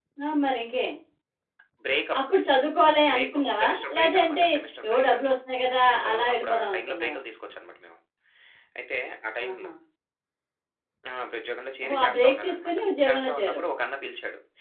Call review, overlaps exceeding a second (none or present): present